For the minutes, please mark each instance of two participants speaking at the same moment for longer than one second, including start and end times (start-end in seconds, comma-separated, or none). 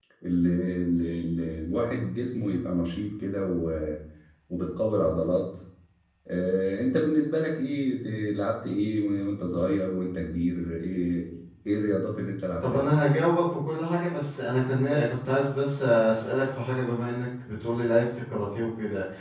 none